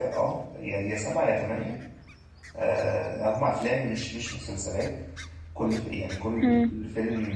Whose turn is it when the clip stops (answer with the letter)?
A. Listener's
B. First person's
B